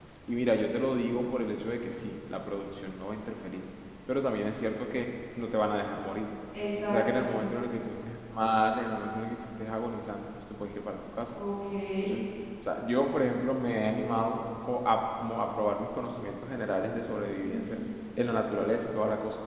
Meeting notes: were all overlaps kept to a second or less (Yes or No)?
Yes